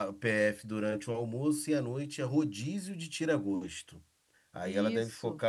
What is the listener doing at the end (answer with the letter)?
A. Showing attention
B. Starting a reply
A